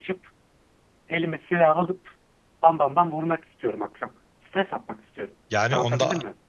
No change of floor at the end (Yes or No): No